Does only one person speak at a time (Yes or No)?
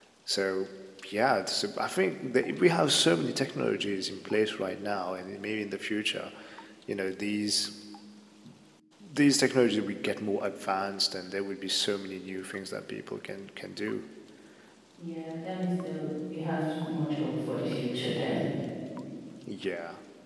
Yes